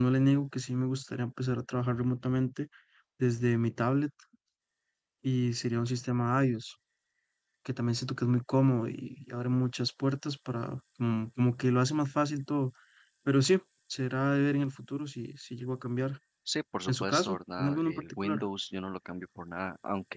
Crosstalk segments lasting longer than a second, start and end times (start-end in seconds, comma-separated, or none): 16.9-18.4